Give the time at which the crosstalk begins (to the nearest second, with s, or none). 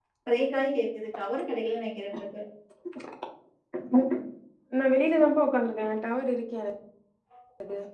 none